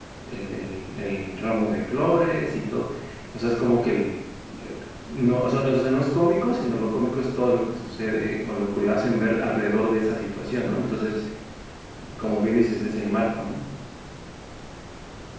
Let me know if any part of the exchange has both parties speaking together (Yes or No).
No